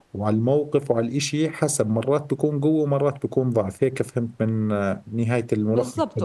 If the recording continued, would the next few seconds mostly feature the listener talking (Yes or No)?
Yes